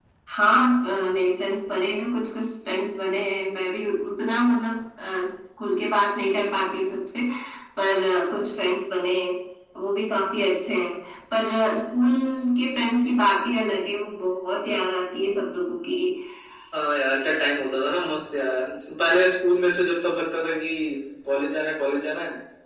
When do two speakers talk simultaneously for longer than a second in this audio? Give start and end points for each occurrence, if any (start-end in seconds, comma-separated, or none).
none